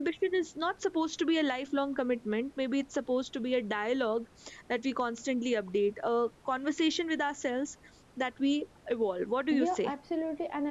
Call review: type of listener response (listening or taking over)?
taking over